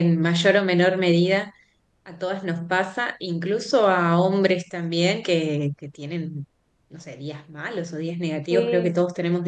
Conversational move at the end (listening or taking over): listening